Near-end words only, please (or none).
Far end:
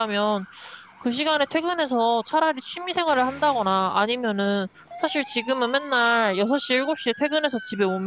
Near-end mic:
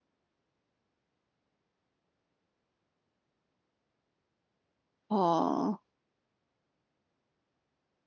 아,